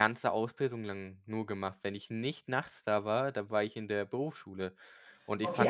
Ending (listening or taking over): taking over